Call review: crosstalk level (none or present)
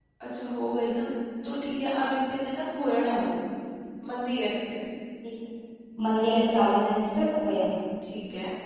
none